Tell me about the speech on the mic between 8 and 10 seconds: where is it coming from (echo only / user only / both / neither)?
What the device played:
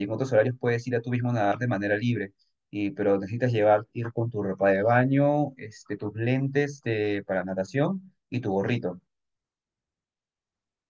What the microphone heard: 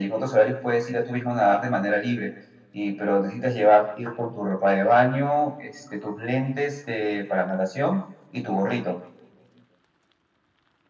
echo only